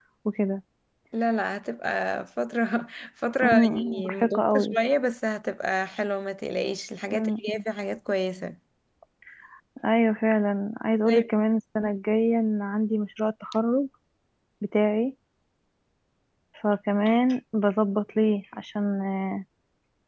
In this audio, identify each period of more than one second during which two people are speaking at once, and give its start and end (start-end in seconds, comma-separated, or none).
3.4-4.8